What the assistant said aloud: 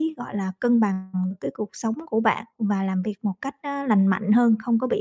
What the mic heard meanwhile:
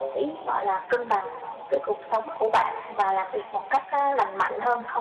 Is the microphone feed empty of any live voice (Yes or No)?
Yes